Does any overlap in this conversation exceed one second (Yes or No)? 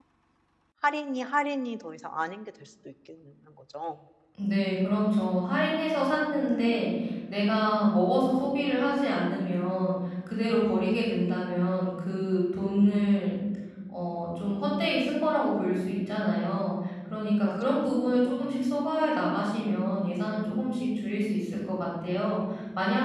Yes